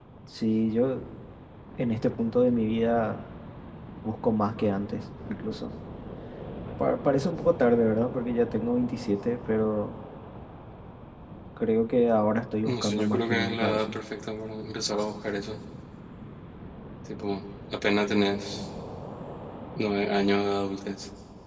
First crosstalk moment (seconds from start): 13 s

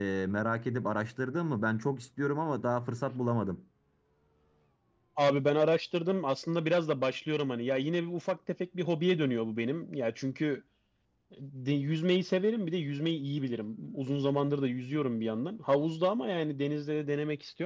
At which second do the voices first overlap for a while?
none

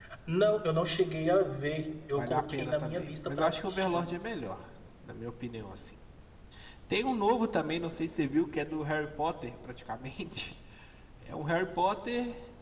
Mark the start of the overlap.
2 s

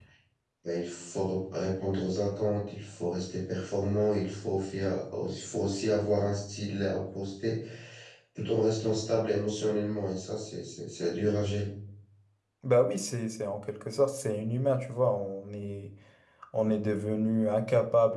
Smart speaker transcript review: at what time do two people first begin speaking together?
none

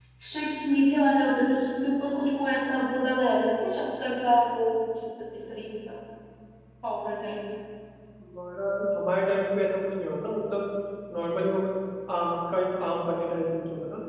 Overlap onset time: none

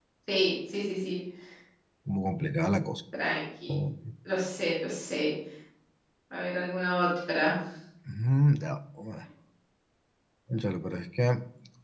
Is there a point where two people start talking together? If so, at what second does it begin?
none

